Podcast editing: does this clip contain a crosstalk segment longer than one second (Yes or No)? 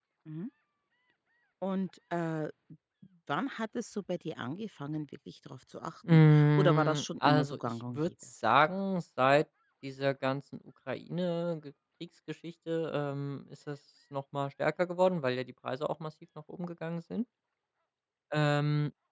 Yes